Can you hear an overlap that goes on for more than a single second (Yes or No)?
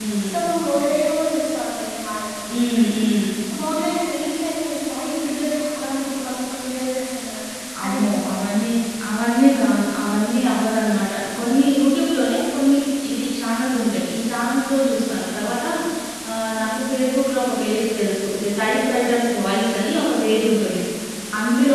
No